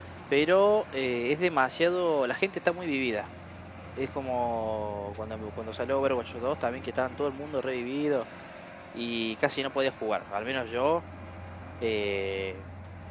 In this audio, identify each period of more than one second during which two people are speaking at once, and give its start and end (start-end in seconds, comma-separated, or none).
none